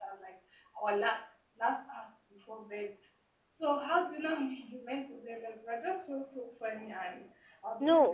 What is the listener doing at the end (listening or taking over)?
taking over